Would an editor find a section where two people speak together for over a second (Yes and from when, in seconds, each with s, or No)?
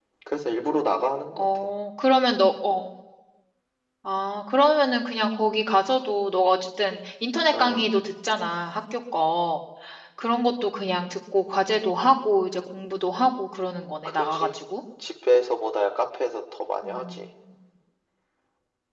No